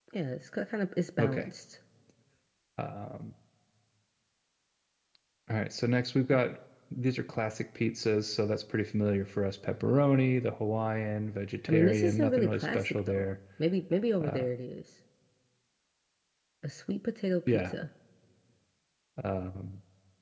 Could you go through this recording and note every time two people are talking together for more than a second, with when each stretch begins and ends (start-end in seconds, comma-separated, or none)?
11.7-13.2